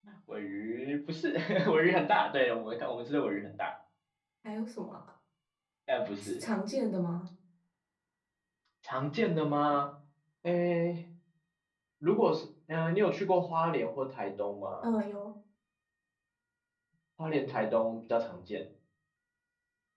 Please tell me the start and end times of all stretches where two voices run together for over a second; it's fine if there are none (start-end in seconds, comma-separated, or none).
none